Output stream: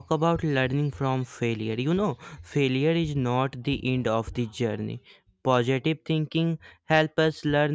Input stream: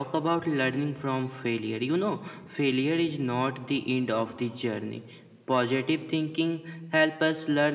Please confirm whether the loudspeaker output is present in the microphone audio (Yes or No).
Yes